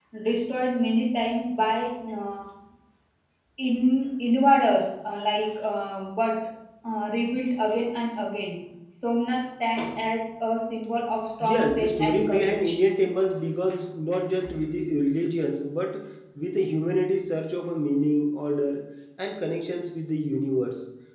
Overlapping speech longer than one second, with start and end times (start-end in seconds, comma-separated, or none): 11.4-12.8